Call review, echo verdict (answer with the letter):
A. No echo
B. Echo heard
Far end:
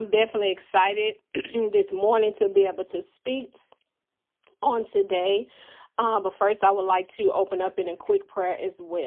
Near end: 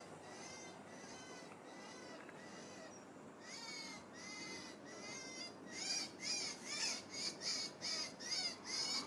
A